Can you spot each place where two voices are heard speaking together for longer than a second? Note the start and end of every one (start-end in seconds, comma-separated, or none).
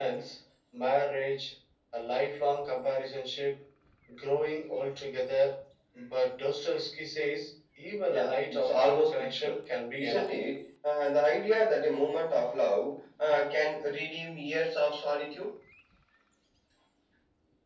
8.1-9.6